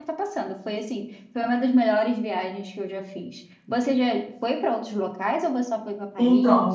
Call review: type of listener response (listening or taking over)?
taking over